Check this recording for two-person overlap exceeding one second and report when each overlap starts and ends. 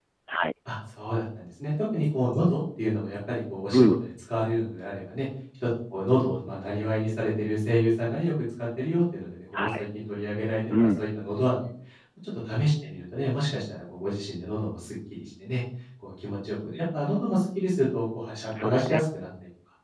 none

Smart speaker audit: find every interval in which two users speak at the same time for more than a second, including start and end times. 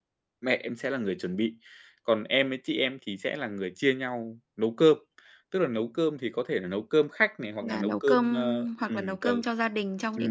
7.6-9.3

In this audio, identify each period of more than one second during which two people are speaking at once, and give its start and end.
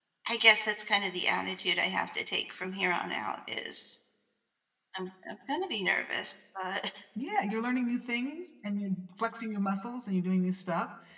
none

